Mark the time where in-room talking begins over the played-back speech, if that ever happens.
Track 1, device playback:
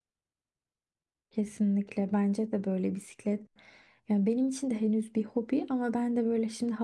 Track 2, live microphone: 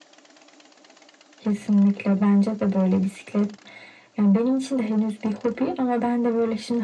none

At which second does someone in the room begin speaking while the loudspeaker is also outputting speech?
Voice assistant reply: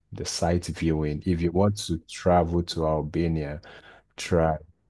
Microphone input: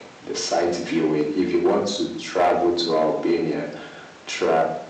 none

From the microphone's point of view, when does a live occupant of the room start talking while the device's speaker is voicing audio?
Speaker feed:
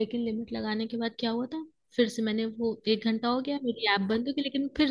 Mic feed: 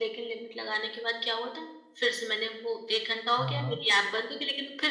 3.4 s

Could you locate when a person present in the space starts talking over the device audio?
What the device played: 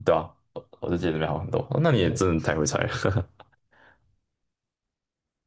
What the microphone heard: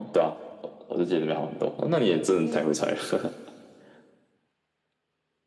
2.4 s

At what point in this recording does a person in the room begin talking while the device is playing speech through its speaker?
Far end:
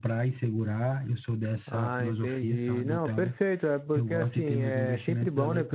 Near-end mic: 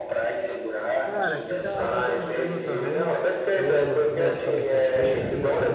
1.0 s

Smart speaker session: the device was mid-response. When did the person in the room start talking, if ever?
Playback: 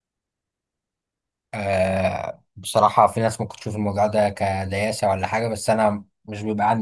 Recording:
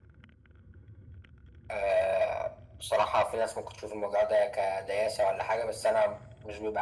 none

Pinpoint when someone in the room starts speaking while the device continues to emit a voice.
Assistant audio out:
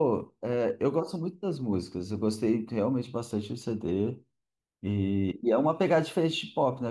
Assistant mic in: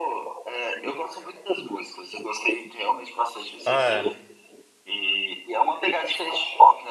3.6 s

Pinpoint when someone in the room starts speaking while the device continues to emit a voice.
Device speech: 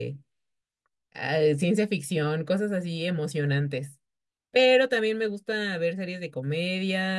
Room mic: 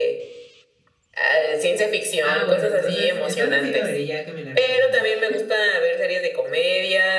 2.2 s

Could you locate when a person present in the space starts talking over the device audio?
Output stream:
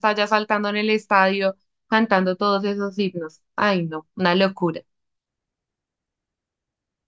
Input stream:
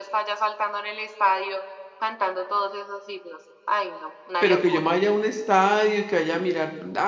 4.4 s

